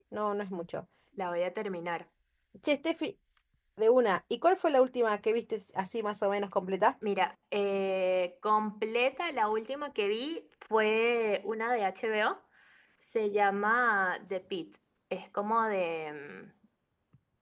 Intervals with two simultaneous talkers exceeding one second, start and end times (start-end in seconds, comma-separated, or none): none